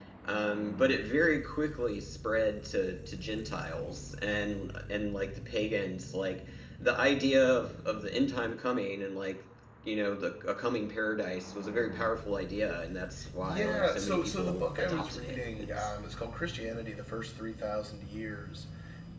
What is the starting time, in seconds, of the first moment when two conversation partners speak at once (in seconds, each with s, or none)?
13.4 s